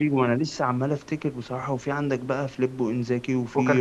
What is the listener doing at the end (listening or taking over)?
listening